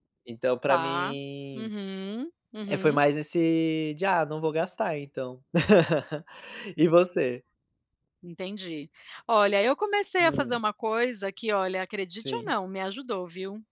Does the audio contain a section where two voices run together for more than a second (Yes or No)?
No